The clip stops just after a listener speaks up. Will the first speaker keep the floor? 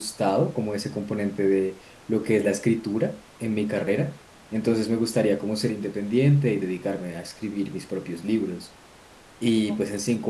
Yes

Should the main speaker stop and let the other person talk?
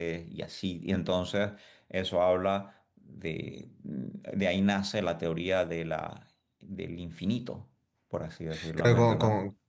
Yes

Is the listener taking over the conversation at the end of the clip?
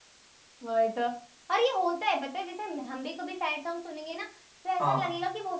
No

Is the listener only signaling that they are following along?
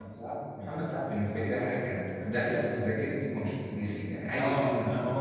No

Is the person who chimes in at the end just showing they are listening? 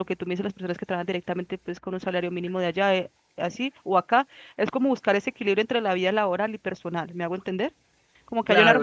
No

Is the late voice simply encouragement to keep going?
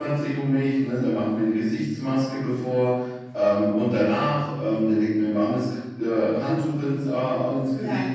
Yes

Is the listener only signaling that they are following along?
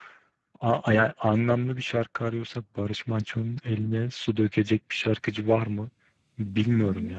No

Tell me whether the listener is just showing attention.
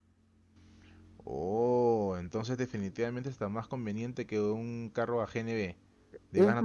No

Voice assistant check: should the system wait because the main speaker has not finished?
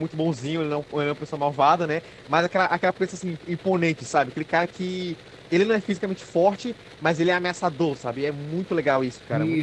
No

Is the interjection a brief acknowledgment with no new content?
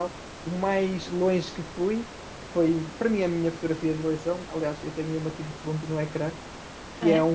Yes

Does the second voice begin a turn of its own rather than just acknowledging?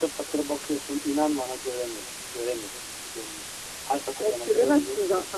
Yes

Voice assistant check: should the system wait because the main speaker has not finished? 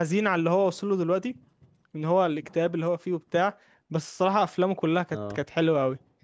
Yes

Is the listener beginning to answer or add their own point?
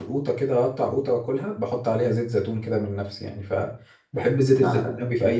No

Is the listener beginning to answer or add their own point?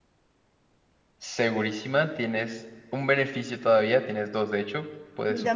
Yes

